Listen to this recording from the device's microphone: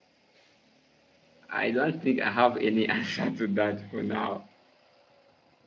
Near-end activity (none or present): present